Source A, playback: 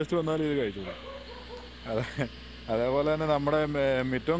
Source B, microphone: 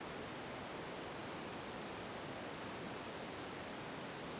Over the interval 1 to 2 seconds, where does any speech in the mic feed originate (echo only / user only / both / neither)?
neither